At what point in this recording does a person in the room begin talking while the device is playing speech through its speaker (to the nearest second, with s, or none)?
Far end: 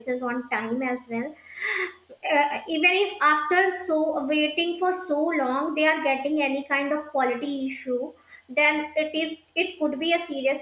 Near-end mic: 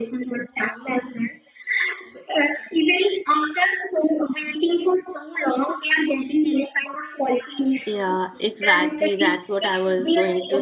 8 s